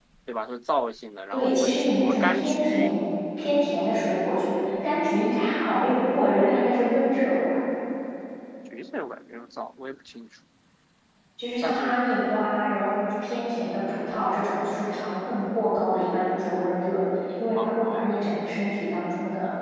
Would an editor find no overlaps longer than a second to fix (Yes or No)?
No